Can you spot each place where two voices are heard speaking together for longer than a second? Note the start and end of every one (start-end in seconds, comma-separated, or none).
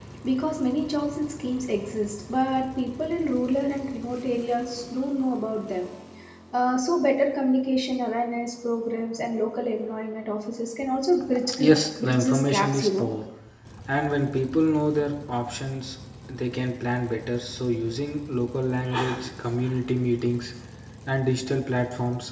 11.6-13.1